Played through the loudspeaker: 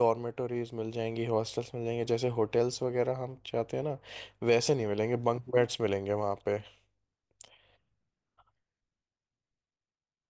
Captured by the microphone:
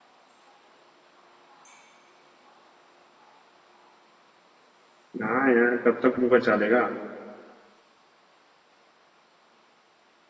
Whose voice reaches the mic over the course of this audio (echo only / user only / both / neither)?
user only